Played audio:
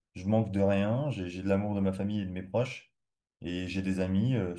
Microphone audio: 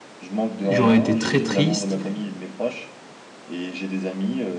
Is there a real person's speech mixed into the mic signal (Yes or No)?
Yes